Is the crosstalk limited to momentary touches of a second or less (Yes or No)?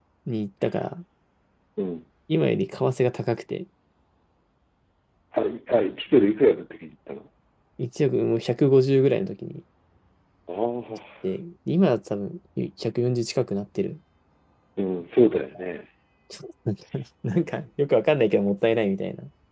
Yes